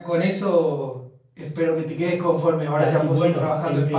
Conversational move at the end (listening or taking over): taking over